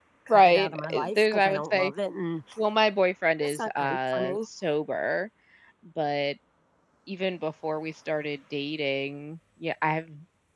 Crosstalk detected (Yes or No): Yes